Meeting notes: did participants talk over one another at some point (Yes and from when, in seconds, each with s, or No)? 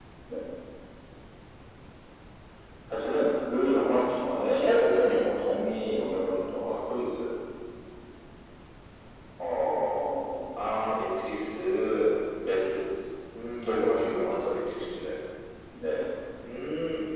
No